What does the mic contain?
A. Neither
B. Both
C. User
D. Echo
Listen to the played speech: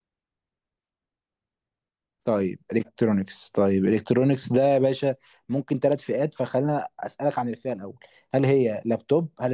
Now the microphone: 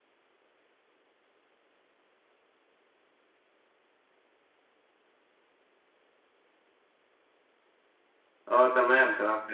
C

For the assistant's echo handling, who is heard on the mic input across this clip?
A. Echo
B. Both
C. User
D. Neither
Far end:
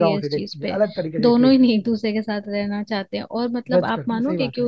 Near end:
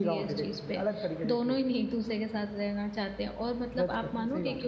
A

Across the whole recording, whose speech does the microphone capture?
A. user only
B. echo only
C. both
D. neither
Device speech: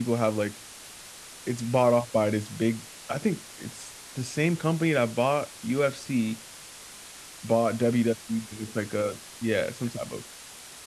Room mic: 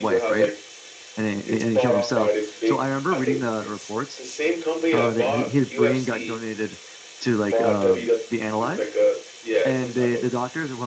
C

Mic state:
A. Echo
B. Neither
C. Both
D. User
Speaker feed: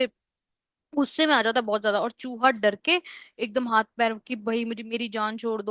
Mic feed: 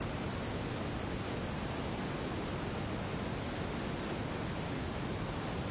B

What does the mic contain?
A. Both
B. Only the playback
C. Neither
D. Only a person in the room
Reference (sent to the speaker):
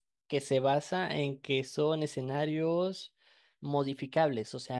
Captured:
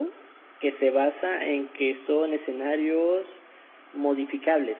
B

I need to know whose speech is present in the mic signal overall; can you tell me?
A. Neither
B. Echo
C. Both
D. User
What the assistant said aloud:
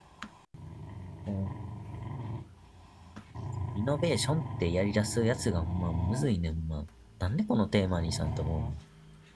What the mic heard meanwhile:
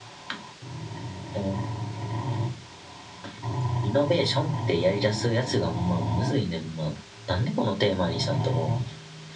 B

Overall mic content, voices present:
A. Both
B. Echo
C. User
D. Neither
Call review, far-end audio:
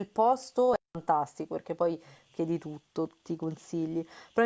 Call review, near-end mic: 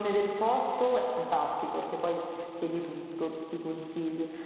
B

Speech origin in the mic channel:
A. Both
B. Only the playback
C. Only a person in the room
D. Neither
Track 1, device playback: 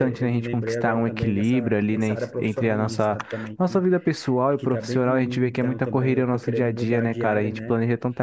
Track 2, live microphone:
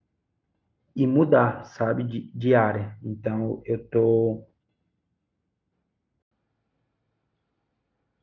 C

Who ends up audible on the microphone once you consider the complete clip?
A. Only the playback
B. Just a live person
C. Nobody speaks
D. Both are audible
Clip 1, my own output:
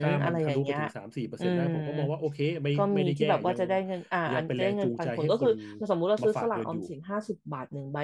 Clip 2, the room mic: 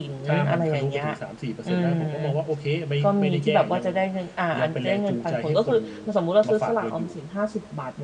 A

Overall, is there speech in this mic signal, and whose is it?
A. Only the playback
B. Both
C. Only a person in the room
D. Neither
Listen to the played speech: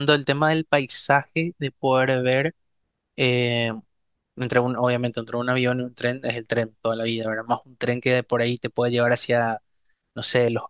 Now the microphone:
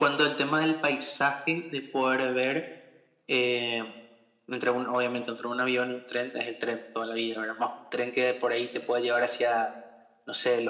A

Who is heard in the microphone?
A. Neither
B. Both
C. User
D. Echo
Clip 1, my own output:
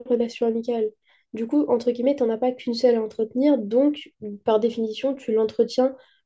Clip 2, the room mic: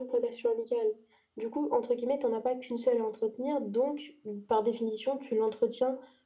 D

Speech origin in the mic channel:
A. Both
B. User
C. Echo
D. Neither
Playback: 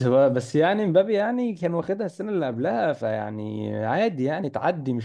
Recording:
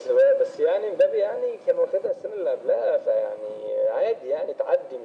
C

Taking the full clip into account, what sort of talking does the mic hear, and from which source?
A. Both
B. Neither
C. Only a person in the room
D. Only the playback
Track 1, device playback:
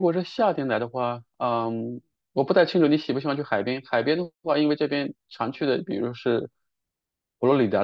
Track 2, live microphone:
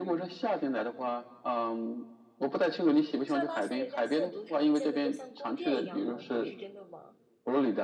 A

